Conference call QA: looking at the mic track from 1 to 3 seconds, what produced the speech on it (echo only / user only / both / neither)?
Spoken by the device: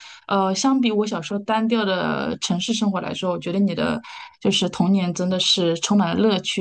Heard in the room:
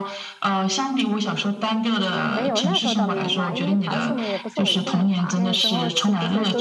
both